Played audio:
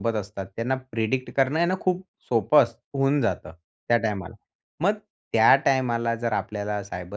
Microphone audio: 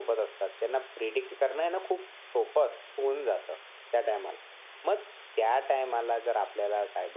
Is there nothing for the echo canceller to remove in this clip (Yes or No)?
No